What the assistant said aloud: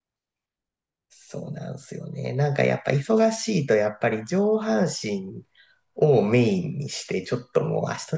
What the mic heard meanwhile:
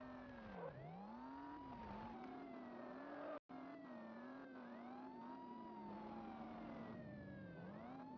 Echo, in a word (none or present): none